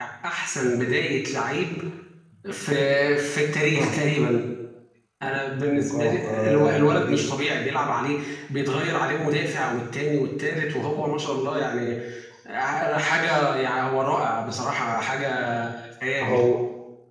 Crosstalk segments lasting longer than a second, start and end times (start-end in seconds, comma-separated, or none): 5.8-7.3